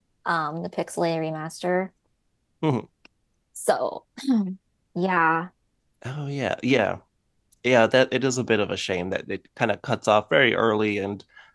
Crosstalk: none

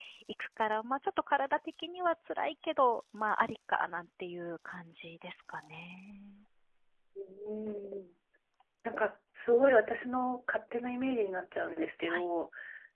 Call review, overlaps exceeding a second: none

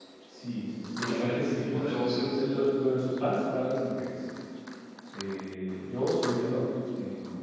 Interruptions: present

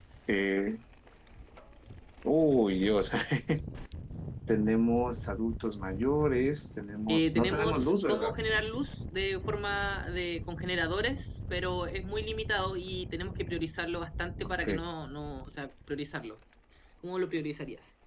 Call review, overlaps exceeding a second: present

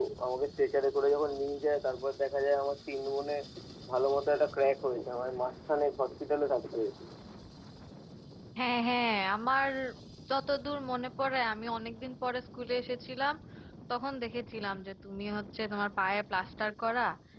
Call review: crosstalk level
none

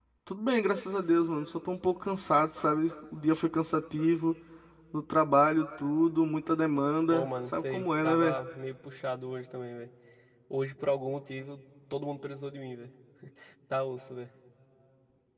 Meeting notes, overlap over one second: present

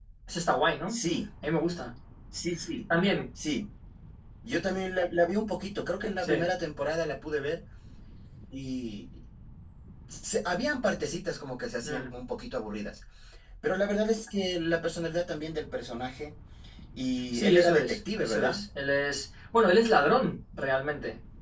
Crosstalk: present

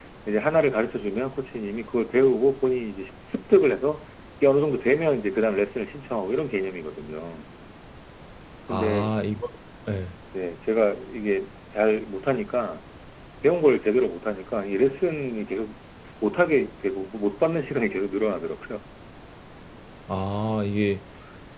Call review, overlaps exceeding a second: none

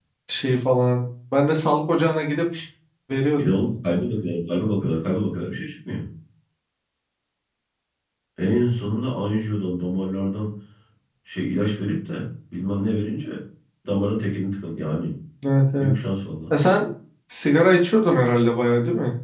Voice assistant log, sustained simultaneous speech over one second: none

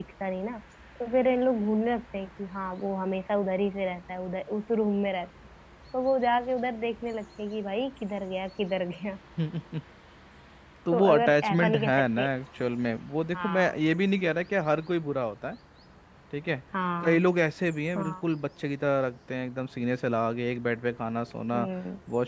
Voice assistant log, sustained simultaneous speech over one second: present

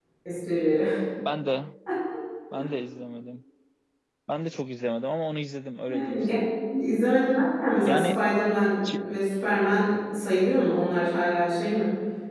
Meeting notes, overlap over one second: none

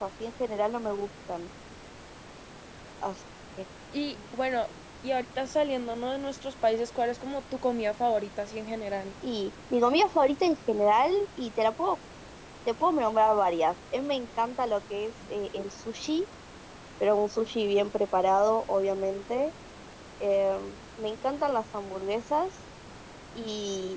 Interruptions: none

